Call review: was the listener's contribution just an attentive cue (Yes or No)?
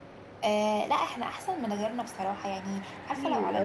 Yes